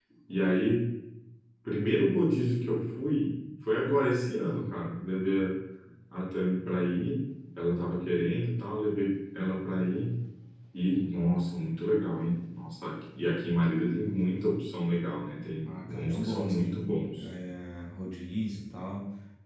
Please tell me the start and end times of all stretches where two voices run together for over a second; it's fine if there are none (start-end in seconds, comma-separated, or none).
15.6-17.2